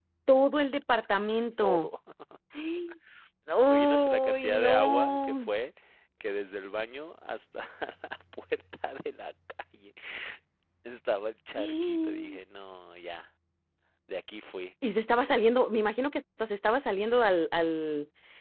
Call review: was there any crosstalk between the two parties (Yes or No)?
Yes